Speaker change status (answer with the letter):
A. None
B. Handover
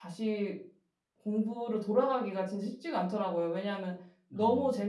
A